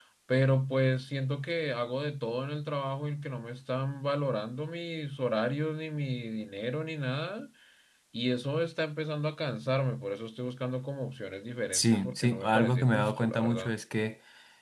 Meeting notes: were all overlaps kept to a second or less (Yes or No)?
No